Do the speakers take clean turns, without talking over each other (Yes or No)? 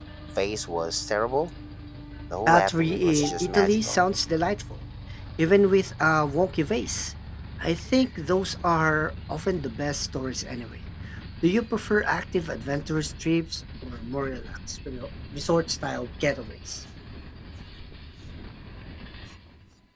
No